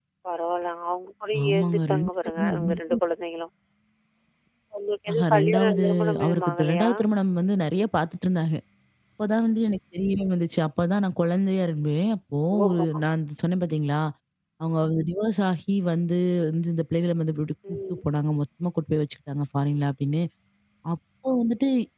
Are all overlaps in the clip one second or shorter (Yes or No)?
No